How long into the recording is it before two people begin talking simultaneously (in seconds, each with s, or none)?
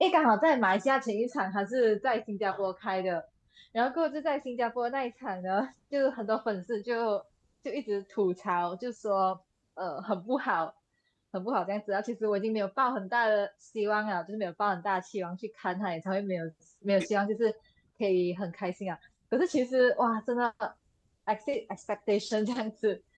none